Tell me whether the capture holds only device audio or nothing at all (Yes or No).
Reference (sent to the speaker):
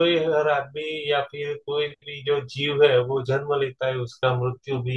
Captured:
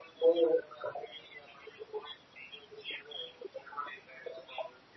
Yes